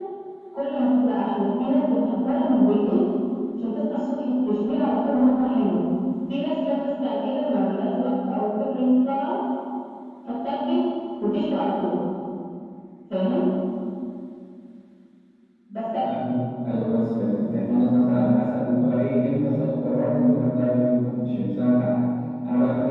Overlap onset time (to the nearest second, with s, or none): none